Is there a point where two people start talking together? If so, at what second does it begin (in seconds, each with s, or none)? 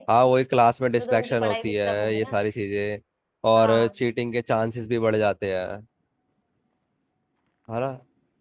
1.0 s